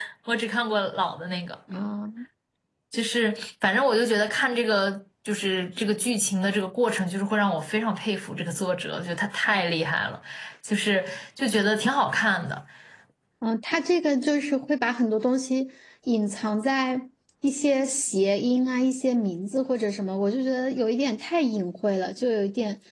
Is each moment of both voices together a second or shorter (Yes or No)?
Yes